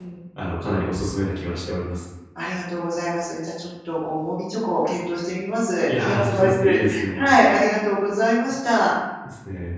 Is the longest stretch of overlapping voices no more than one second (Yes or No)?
No